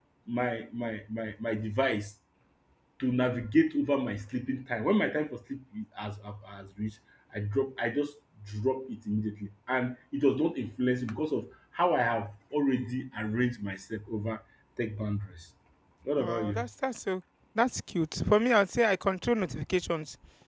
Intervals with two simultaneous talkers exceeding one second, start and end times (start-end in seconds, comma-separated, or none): none